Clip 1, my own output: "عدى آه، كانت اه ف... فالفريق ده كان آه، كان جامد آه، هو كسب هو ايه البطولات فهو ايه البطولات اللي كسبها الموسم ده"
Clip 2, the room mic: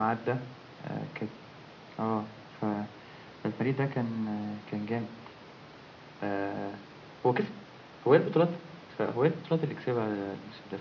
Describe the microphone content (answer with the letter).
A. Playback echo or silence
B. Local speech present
A